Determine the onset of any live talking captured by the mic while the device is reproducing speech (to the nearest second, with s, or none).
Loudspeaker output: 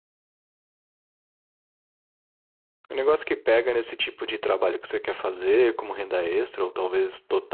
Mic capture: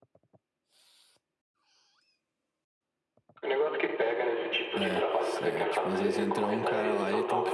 5 s